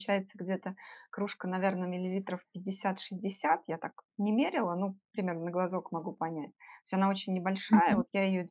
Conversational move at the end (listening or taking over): listening